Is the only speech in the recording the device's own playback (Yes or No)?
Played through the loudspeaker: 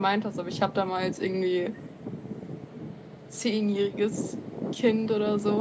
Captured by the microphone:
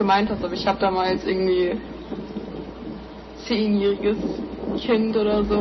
Yes